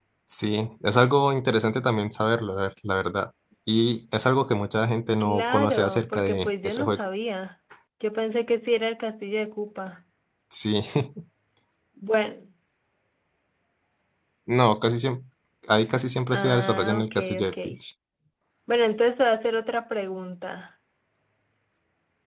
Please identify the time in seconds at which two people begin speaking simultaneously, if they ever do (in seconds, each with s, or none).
5.2 s